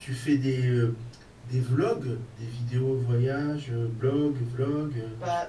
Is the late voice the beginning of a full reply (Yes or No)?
Yes